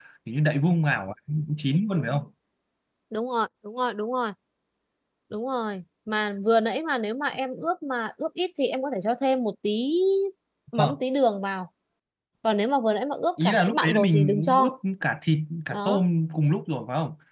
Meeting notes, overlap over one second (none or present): present